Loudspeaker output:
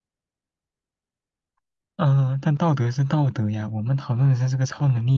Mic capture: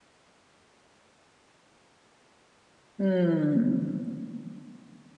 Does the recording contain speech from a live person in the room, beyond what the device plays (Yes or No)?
Yes